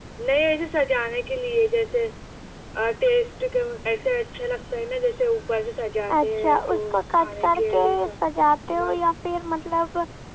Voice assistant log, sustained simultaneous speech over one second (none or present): present